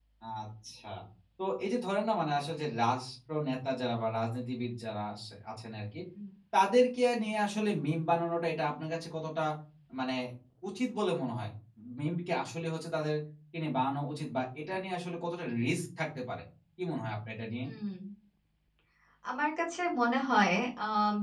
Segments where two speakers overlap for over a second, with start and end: none

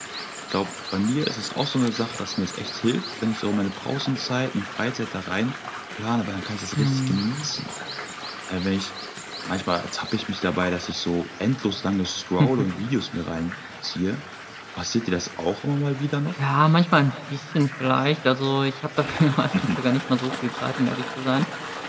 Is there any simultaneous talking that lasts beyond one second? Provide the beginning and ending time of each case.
none

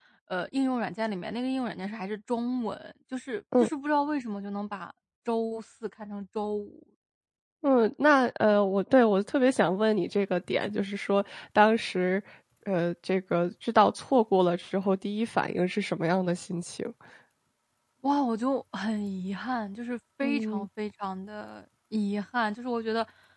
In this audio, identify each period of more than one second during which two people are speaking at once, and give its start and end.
none

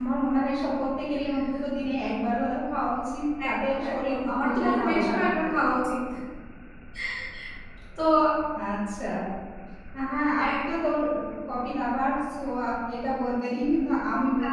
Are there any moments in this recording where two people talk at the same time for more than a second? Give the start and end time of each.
3.4-5.4

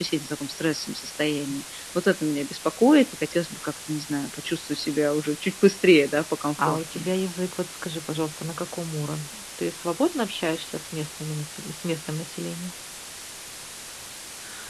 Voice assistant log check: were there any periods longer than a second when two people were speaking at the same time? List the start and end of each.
none

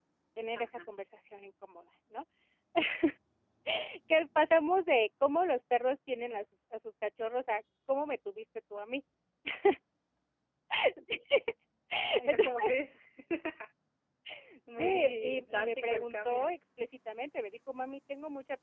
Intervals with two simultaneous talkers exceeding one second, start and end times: 14.8-16.6

